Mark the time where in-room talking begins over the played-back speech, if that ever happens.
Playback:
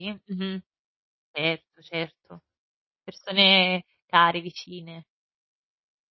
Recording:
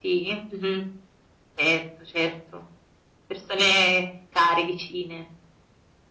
none

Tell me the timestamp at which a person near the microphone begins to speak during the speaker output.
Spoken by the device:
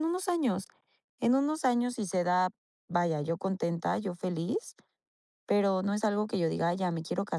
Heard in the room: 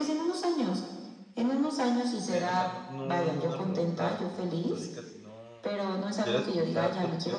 2.3 s

